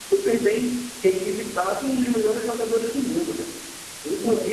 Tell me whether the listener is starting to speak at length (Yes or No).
No